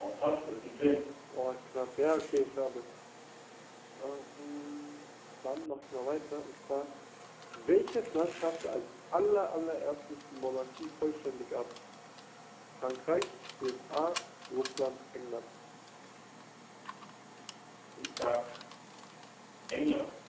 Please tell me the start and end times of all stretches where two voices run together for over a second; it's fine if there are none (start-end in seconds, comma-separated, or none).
none